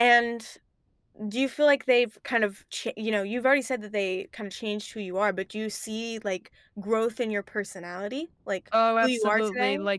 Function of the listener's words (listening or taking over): taking over